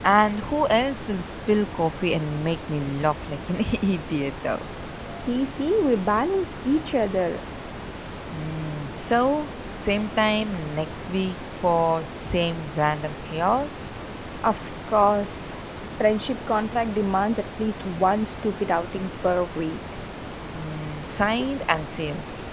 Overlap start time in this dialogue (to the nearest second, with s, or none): none